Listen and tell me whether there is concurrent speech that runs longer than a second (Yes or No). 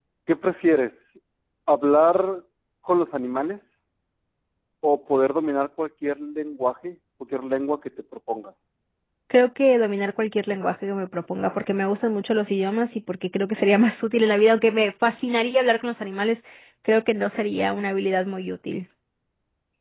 No